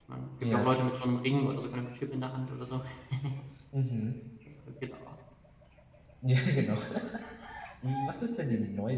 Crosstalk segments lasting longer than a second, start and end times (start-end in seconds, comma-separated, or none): none